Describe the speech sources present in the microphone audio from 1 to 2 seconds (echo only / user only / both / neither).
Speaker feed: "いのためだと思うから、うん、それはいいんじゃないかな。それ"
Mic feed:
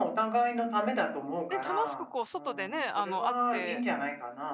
both